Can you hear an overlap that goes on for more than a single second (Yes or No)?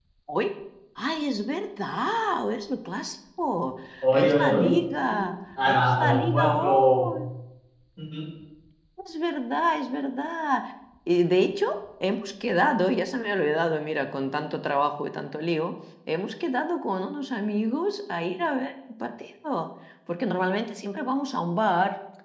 Yes